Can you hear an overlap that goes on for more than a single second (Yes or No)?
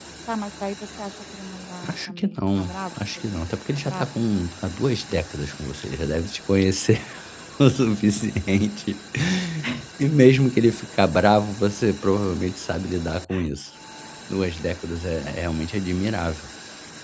Yes